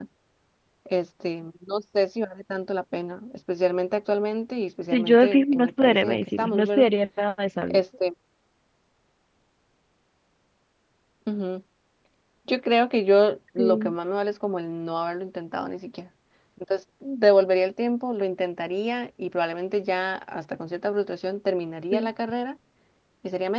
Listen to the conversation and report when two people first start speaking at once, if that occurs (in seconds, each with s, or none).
4.9 s